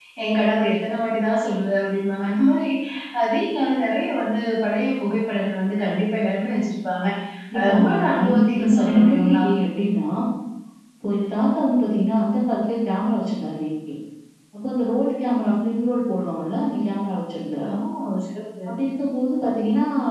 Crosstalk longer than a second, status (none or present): present